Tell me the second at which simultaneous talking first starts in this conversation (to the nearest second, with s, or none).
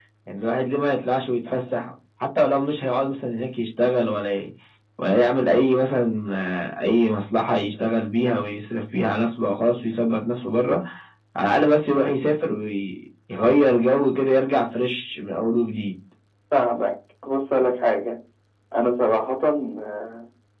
none